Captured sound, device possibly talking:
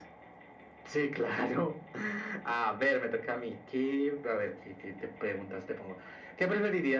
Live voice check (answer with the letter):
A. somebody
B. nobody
B